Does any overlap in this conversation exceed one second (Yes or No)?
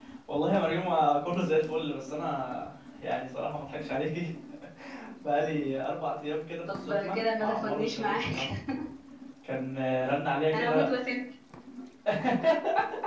Yes